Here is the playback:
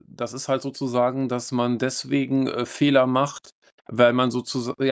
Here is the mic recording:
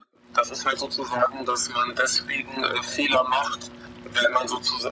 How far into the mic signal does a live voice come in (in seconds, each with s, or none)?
none